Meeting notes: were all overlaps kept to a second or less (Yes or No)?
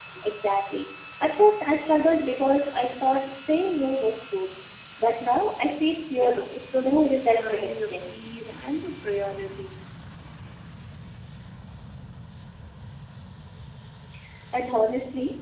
No